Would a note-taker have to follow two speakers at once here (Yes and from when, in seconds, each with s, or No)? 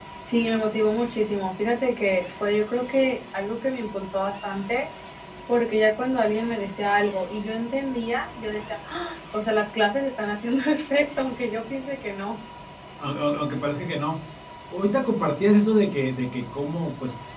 No